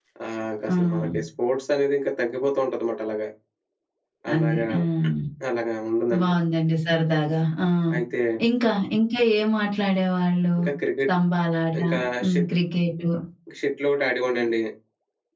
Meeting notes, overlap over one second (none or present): none